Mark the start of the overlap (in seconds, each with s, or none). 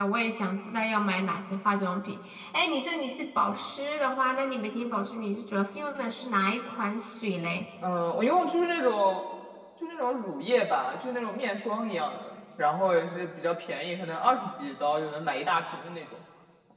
none